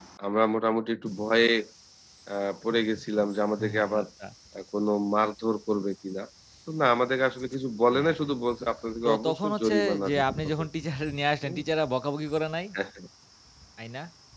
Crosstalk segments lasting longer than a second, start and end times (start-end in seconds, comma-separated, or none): 9.0-10.5